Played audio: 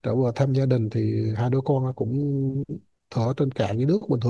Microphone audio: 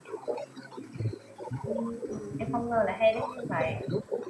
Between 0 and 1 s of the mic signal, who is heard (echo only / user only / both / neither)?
echo only